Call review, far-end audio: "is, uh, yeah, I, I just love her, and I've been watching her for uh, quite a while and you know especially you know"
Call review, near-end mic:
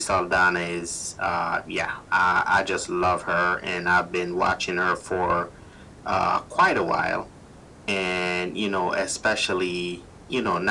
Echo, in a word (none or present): present